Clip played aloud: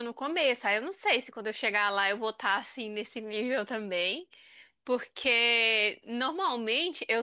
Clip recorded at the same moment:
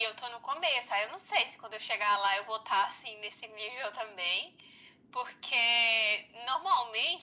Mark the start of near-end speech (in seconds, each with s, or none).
none